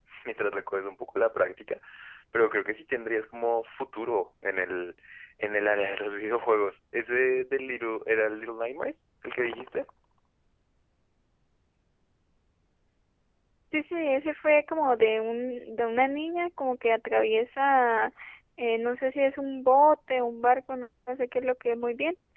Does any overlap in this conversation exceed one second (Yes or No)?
No